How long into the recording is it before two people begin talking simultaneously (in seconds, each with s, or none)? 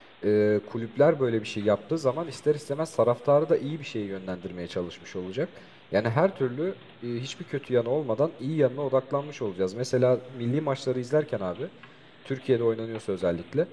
none